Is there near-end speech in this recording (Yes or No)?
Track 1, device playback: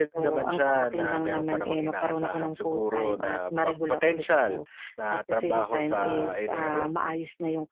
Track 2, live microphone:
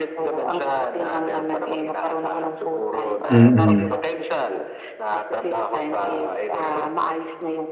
Yes